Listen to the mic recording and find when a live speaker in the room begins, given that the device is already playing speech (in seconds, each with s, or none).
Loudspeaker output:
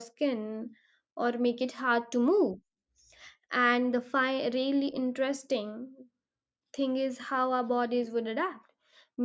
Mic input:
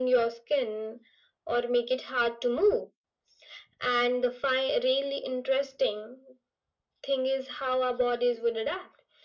none